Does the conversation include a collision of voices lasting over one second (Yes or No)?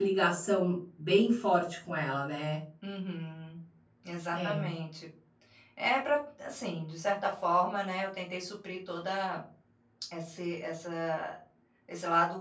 No